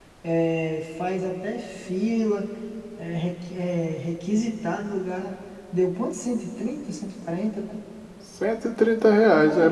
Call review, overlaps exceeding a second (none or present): none